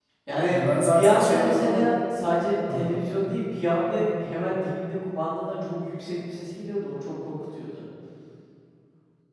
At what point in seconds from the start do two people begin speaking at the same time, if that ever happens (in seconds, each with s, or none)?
0.5 s